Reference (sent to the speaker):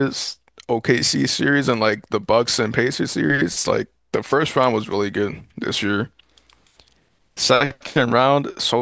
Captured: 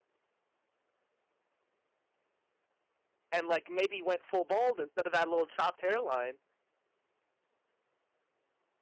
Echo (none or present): none